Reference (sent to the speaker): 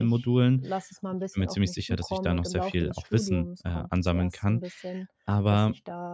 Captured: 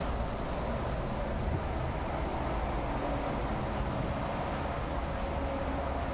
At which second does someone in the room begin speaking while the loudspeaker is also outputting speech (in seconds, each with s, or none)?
none